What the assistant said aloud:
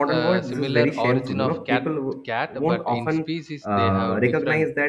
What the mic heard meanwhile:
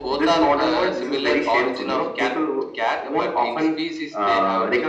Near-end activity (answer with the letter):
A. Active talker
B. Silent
B